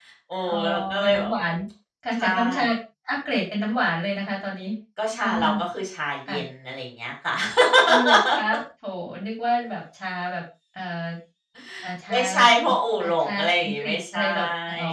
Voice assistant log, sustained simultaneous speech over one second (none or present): present